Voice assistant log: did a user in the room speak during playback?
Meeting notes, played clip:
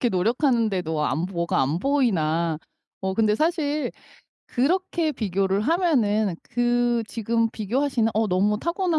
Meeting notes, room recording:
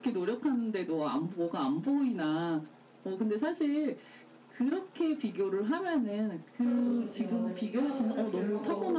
Yes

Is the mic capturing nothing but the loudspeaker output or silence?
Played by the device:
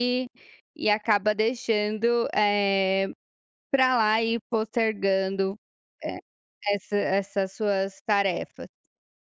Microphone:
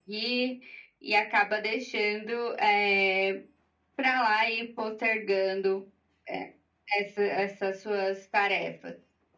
Yes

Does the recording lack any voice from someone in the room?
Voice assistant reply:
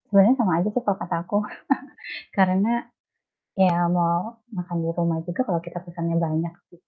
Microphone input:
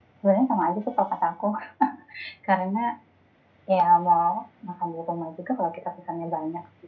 Yes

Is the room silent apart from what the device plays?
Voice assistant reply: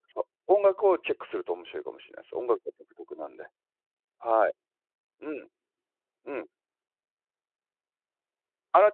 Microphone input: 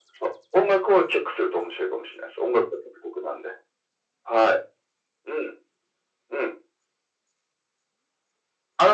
Yes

